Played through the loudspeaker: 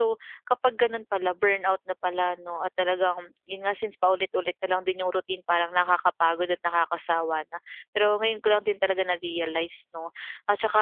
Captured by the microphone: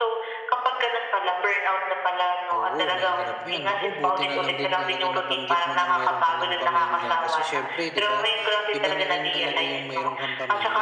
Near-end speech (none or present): present